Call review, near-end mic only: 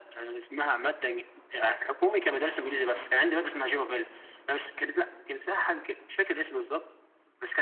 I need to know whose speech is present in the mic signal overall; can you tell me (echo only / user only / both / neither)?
echo only